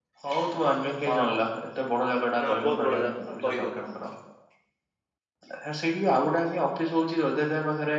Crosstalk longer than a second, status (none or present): present